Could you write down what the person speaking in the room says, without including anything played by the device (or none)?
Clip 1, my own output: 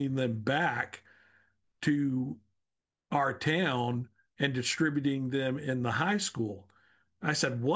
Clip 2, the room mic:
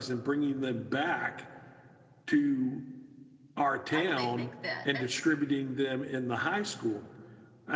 Why would they think that? That's